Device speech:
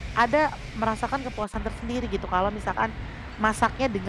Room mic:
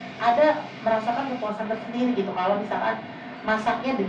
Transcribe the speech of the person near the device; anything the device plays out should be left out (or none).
none